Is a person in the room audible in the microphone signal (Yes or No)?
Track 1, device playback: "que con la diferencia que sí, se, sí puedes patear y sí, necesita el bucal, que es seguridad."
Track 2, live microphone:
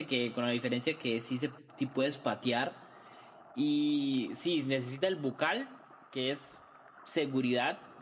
No